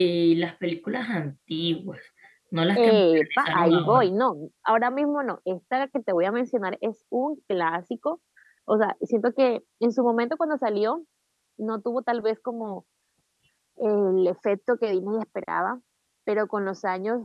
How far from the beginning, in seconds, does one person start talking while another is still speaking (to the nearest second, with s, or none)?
3 s